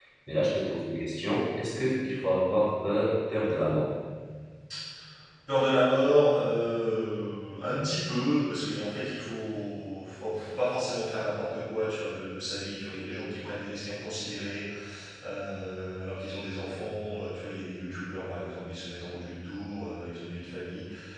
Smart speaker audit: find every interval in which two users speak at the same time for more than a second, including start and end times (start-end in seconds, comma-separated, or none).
none